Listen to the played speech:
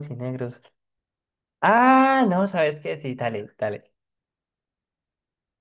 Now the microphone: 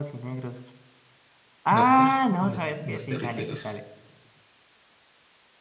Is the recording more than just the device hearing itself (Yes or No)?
Yes